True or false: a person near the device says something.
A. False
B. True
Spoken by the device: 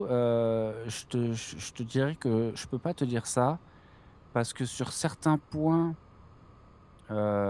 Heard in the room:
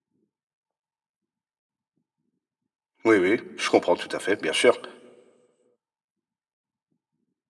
B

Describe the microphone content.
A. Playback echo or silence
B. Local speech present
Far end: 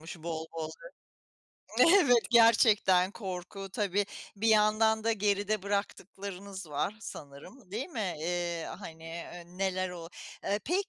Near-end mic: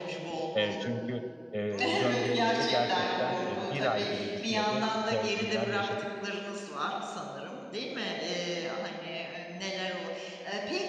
B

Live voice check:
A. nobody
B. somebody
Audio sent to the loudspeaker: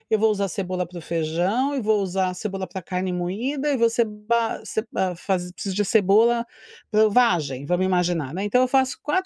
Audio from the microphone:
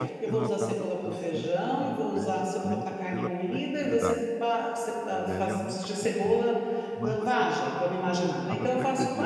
B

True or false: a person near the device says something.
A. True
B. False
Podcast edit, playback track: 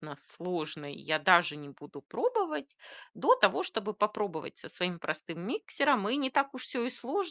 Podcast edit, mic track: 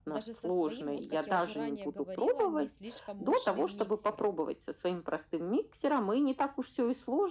A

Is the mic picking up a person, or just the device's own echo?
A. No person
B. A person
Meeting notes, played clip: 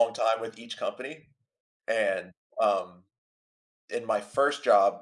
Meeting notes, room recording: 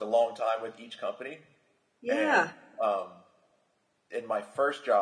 B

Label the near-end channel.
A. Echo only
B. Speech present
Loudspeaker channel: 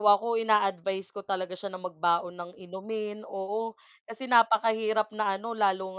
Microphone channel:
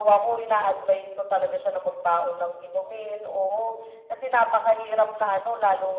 A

